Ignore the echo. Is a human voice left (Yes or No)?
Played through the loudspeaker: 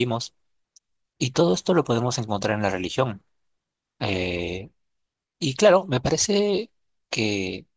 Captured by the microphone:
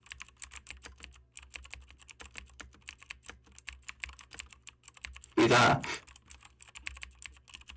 Yes